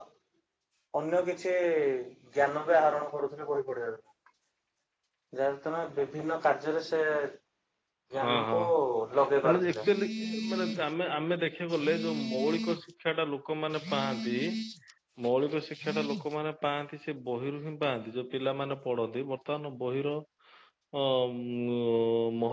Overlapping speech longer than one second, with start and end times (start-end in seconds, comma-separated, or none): none